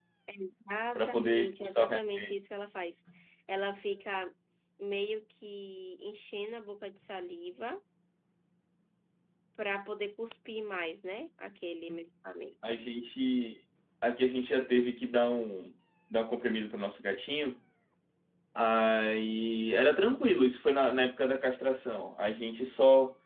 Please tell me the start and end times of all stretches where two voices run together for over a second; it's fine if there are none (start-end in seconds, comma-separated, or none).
1.0-2.3